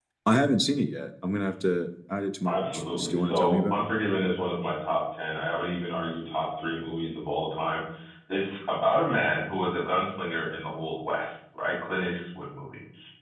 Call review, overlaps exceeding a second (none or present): present